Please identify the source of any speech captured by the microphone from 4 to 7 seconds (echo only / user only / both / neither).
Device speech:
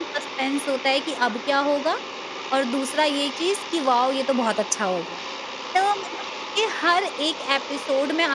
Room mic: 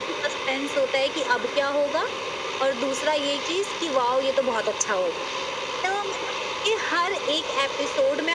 echo only